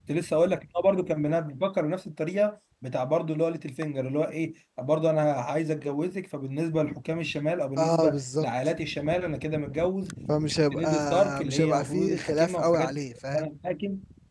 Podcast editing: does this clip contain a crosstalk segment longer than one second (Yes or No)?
Yes